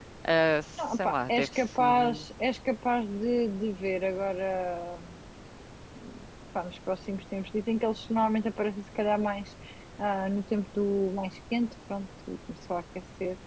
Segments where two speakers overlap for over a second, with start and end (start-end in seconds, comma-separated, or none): 0.9-2.2